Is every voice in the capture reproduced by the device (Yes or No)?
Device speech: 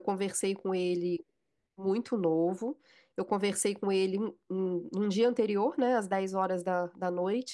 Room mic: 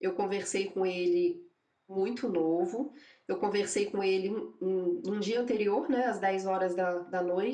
Yes